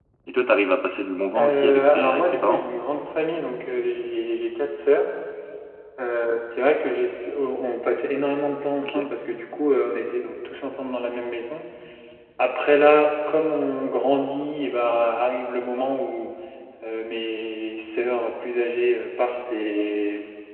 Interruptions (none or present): present